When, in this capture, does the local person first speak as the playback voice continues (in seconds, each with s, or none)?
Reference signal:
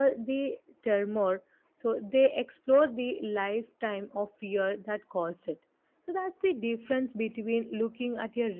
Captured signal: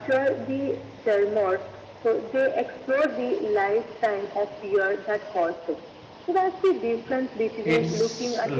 7.6 s